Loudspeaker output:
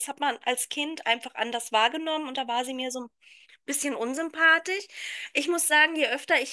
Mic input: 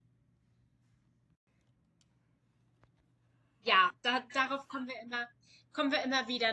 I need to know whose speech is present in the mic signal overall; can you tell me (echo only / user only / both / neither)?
user only